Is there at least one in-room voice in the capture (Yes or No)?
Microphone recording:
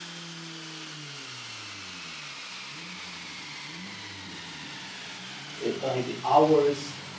Yes